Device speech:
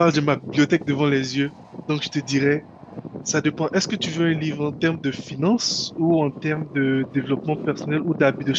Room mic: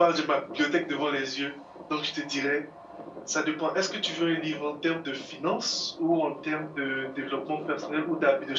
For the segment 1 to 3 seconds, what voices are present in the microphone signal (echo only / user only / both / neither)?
echo only